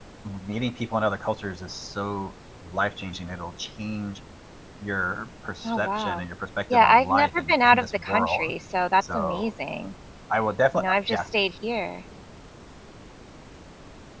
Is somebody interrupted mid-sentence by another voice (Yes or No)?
Yes